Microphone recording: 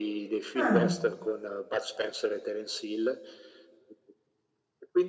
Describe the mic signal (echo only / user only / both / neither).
both